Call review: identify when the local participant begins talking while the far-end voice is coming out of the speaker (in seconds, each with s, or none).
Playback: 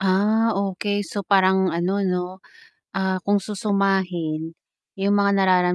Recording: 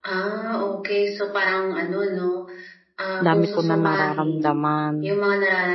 3.2 s